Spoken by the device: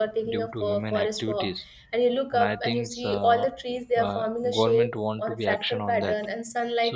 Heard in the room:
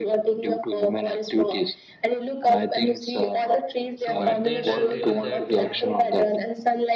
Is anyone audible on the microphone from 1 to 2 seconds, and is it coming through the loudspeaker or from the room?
echo only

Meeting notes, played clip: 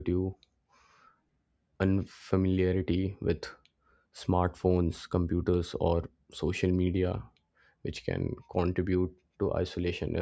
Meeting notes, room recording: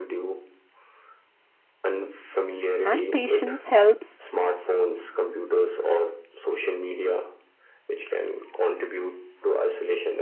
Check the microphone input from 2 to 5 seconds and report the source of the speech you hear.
both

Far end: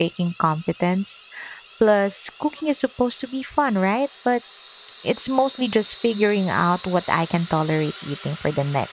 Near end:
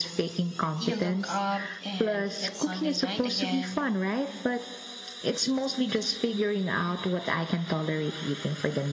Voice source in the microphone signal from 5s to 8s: echo only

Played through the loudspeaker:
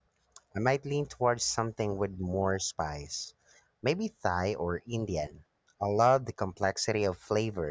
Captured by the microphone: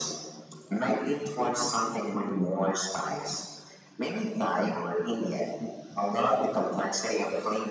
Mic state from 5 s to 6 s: echo only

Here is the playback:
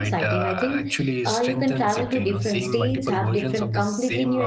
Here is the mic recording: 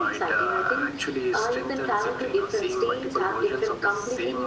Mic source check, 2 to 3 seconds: echo only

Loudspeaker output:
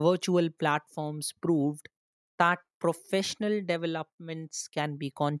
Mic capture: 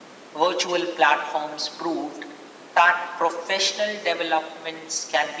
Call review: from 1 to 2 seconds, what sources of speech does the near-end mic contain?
echo only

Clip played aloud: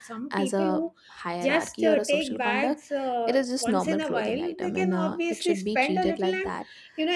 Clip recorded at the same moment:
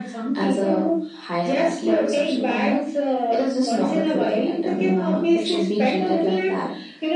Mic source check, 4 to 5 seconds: echo only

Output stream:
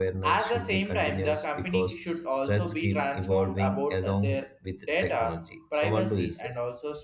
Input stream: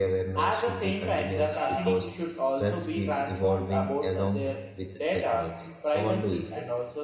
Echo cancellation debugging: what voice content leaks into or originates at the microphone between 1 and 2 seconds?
both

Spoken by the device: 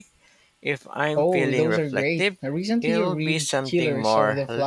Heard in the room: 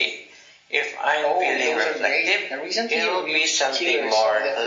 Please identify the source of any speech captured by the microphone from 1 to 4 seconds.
echo only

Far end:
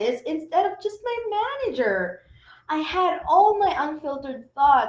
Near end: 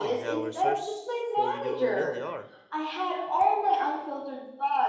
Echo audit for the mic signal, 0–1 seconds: both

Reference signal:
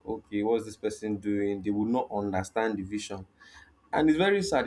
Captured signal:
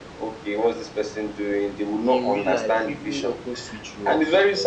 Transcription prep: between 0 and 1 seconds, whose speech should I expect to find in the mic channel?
echo only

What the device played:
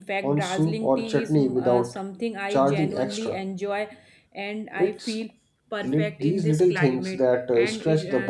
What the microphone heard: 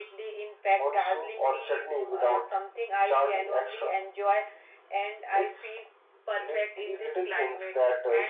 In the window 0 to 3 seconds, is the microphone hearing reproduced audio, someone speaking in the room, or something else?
echo only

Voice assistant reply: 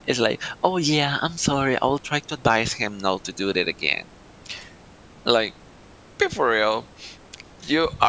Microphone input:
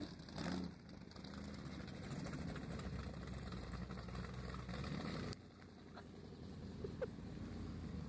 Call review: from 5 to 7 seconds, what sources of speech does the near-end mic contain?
neither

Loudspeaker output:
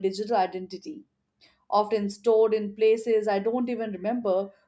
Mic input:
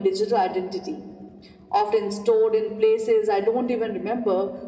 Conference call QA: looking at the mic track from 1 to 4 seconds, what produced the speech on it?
echo only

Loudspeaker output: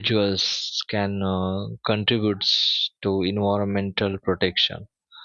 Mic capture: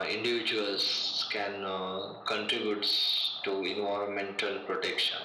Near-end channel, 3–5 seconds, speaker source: echo only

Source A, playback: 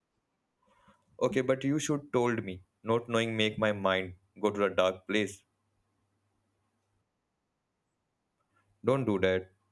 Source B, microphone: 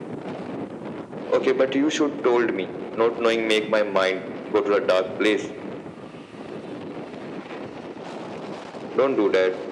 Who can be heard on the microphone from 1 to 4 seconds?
echo only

